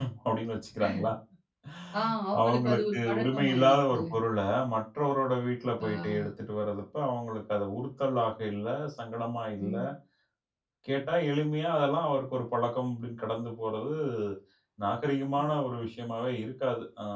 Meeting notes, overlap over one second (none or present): present